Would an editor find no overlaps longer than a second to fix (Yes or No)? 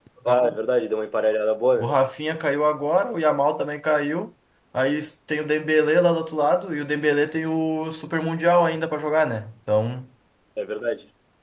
Yes